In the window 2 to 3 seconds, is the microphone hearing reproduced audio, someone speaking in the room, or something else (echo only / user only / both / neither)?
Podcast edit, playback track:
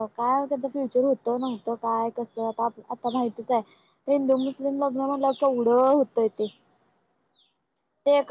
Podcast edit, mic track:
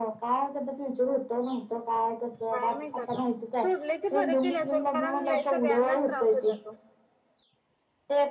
both